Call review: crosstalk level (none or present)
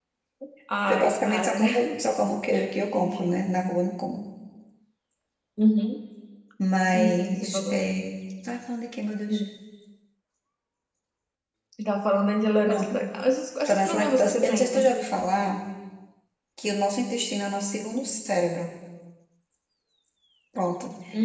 present